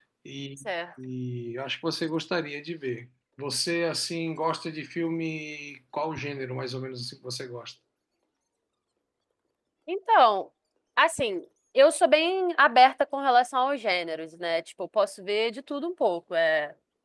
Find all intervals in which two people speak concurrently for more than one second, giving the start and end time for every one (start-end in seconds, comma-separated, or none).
none